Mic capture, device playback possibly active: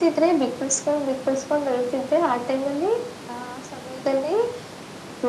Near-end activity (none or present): none